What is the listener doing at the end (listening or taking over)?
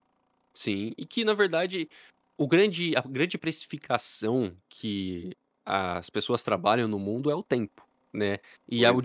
listening